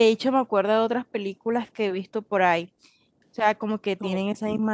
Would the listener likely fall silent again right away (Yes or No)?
Yes